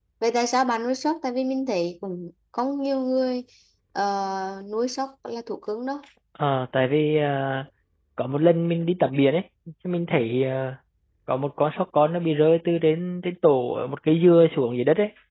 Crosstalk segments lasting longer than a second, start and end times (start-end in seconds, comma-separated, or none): none